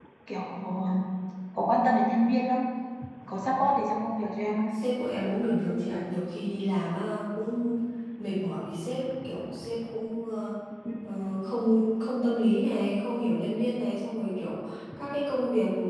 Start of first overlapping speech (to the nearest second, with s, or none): none